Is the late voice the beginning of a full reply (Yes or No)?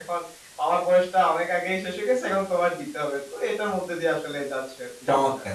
Yes